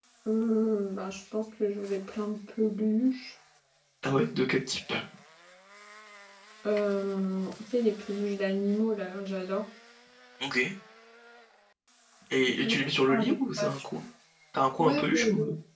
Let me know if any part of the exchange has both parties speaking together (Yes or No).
Yes